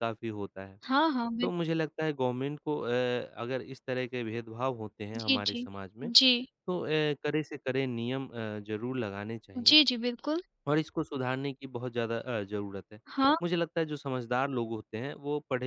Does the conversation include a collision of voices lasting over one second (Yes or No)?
No